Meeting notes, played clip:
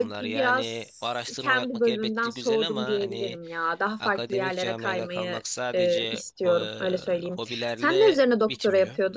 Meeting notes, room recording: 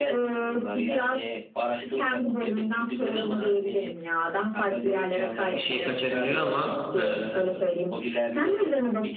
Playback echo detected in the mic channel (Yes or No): Yes